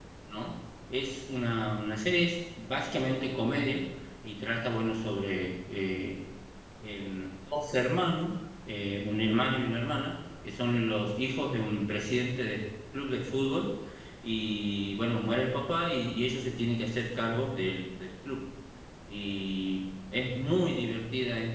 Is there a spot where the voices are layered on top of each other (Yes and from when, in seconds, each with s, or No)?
No